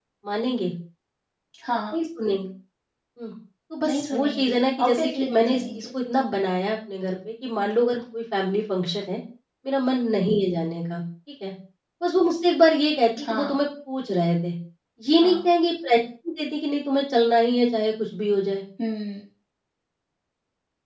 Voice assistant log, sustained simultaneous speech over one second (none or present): present